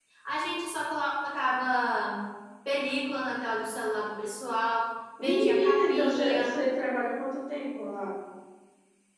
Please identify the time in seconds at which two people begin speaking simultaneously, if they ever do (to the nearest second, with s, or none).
5 s